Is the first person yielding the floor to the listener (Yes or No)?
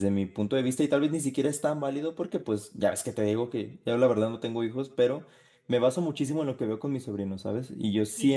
No